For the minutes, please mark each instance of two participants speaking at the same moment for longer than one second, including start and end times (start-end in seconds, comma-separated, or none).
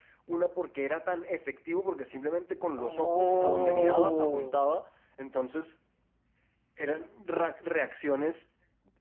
2.8-4.6